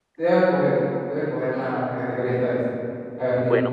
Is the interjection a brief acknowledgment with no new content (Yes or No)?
No